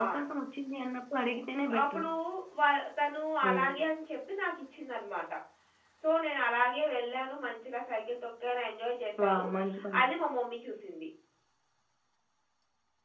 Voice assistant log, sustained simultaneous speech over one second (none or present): none